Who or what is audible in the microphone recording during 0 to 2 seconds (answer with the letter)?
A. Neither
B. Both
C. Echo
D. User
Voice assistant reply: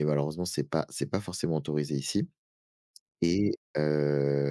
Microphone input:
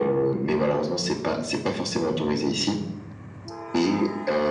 C